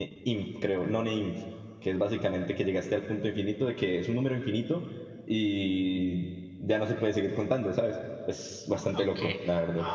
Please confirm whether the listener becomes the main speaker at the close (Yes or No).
Yes